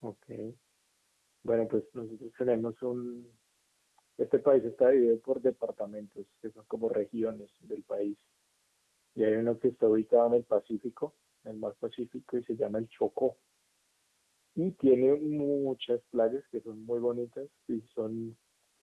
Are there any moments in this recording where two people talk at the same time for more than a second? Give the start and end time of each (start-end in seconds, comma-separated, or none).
none